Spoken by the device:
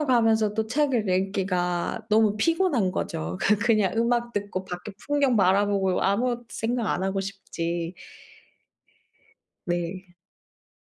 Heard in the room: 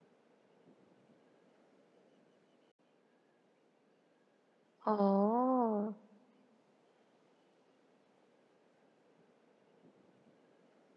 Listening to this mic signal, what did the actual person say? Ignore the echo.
아.

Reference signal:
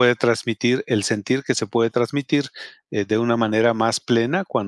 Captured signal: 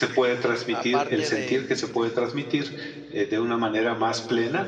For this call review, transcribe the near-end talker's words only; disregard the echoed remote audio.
aparte de,

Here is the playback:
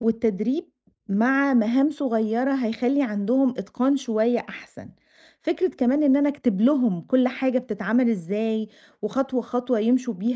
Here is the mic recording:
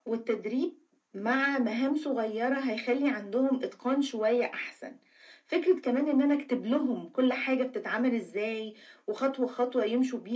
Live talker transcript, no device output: none

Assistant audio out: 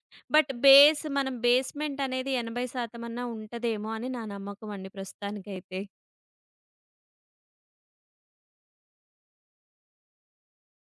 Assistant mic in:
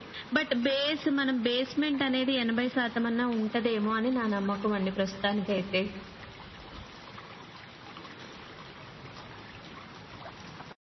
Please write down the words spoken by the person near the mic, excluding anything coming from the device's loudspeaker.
none

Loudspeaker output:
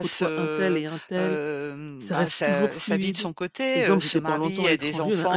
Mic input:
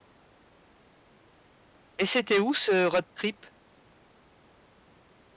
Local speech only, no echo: et c'était où ce road trip?

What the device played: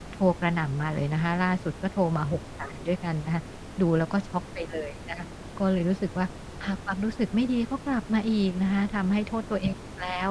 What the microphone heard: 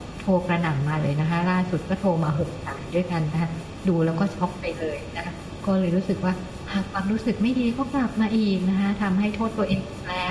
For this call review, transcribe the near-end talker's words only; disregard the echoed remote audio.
none

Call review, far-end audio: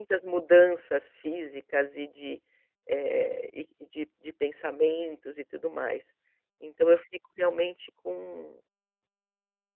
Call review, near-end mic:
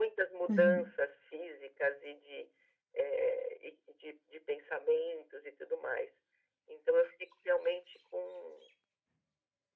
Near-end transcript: Uhum.

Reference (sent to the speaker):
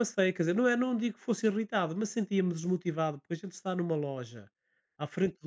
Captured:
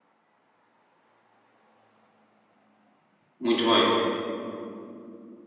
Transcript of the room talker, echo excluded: Muito bem.

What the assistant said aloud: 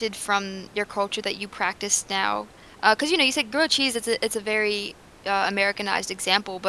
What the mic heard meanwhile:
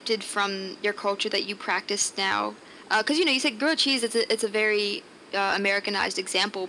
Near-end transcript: none

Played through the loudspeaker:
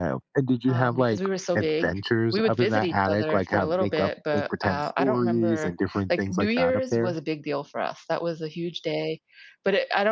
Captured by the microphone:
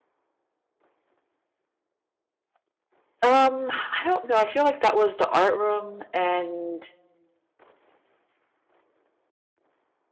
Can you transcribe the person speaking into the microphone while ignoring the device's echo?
Um, I don't know, I feel like that was the art room and

